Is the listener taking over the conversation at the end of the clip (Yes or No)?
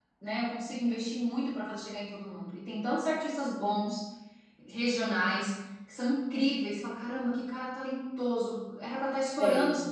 No